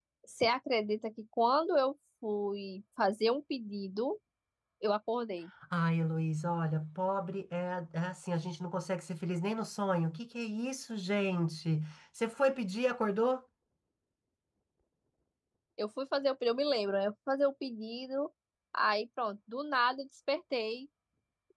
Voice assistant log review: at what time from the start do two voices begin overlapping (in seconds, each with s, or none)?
none